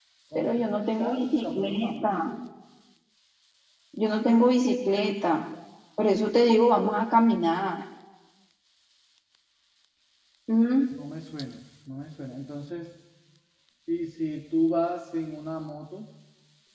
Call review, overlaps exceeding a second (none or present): present